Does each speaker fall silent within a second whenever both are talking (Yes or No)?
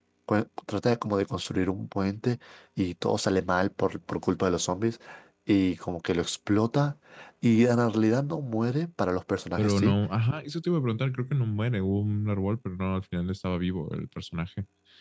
Yes